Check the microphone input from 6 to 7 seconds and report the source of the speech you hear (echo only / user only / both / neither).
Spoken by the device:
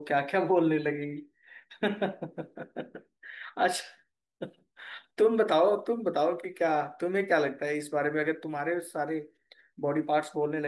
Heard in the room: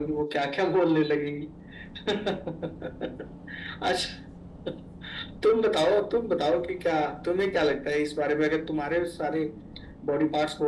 echo only